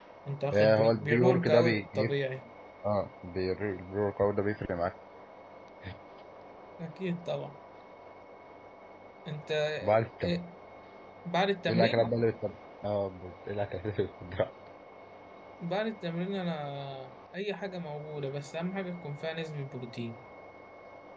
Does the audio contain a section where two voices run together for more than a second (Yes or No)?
Yes